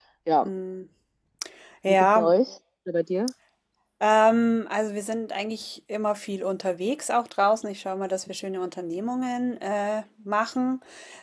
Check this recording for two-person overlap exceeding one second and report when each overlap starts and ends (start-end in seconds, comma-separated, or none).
none